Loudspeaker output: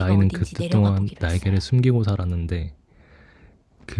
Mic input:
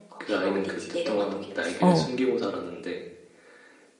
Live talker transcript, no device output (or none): 어,